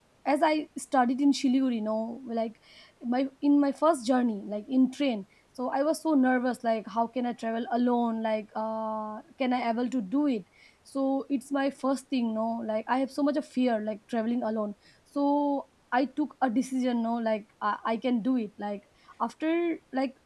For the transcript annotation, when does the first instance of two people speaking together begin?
none

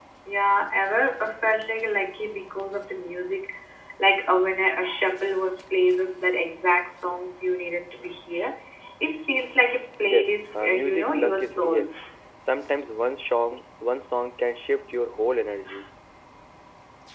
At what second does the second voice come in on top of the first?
10.0 s

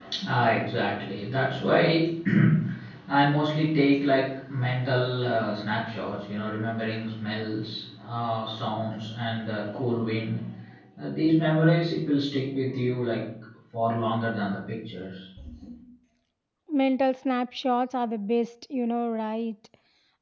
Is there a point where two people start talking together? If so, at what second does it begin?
none

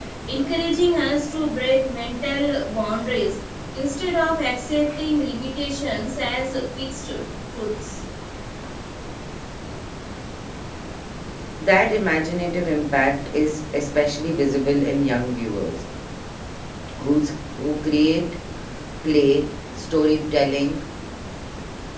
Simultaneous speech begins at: none

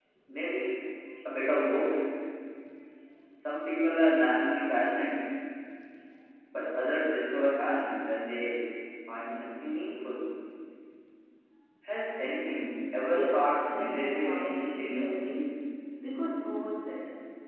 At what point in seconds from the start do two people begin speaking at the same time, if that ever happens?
13.0 s

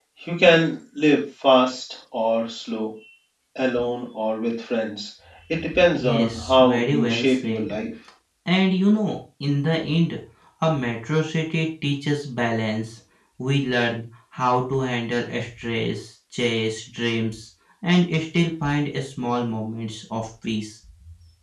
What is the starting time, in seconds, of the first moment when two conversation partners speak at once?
5.9 s

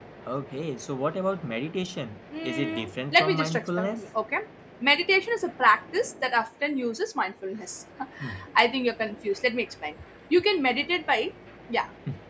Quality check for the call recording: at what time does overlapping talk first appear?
2.4 s

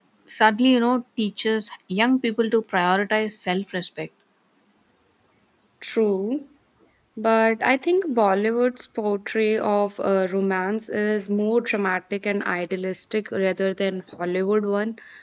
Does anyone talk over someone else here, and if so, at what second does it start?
none

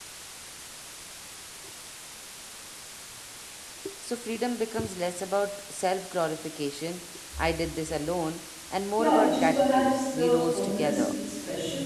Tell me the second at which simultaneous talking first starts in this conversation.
9.0 s

